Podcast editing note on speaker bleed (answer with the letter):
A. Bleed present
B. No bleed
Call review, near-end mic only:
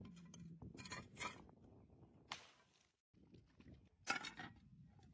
B